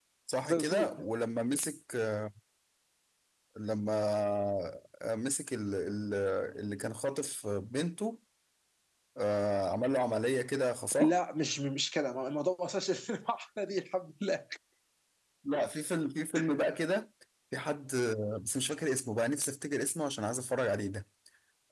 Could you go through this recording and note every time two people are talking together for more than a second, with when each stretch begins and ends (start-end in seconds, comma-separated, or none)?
none